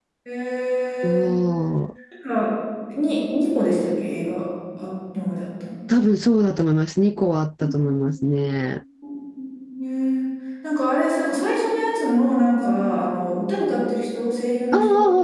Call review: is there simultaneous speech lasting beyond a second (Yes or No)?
No